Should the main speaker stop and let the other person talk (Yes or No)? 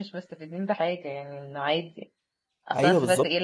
No